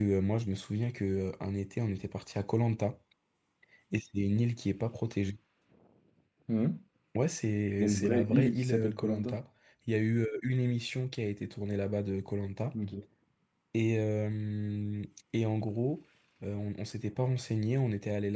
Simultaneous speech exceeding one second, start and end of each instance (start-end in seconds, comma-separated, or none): 7.8-9.1